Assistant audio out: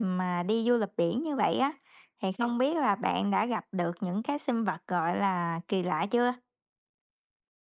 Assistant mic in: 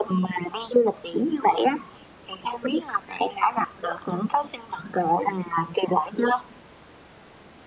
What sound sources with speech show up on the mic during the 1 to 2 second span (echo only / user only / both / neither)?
echo only